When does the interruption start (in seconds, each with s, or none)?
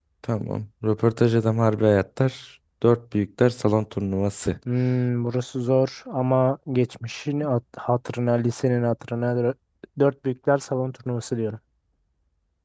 none